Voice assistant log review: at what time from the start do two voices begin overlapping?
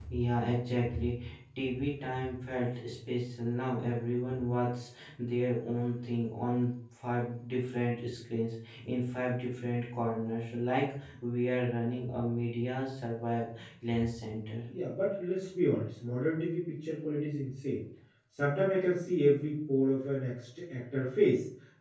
none

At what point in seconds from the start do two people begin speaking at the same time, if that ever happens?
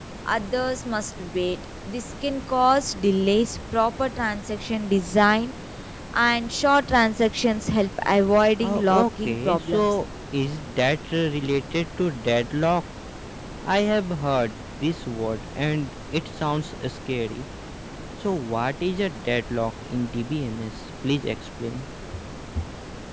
8.6 s

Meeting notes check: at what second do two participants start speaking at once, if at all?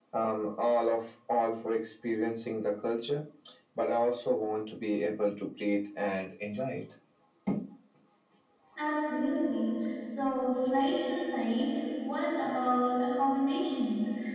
none

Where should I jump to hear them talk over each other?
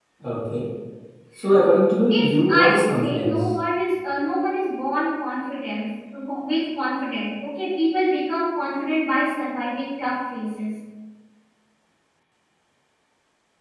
2.1 s

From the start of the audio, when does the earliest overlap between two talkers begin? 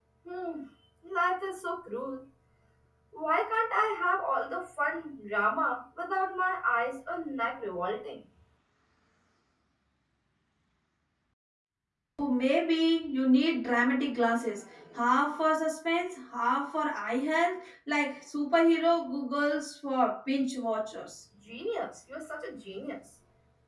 none

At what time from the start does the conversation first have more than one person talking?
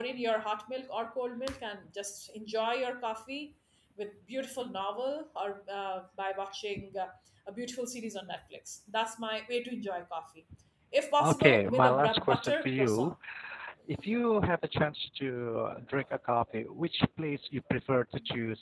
11.2 s

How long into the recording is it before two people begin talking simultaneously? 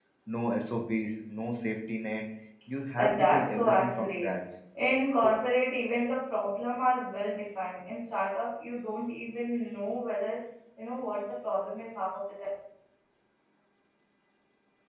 3.0 s

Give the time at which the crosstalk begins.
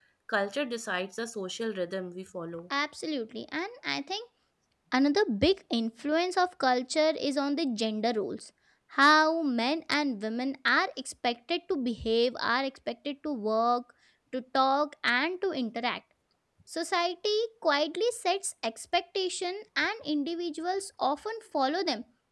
none

